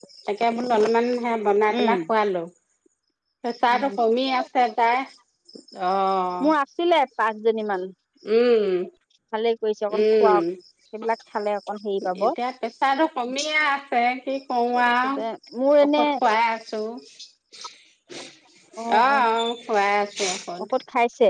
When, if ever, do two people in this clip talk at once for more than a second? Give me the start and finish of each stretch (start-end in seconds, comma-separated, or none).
none